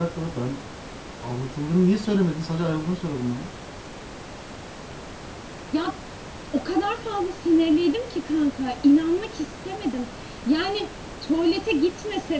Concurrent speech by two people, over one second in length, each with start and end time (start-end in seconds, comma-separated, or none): none